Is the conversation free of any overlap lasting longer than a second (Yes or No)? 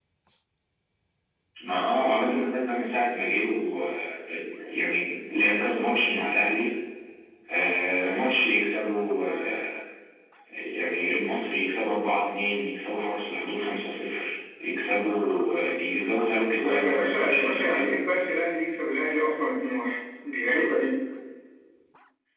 No